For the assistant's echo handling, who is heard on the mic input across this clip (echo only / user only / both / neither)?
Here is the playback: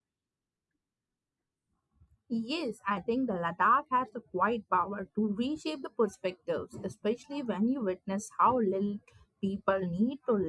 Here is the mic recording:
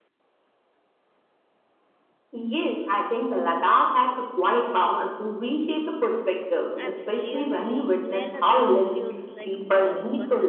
both